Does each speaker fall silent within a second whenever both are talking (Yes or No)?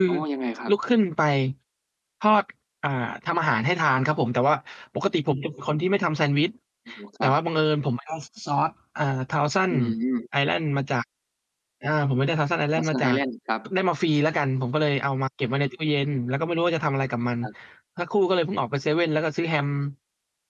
Yes